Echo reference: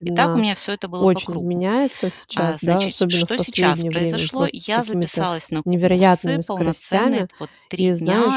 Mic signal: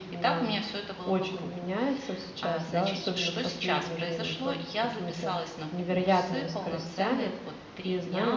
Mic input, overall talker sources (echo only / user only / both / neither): echo only